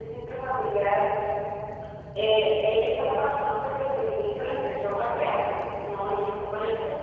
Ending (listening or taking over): listening